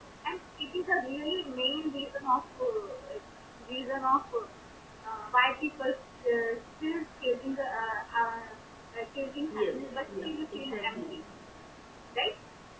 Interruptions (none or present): present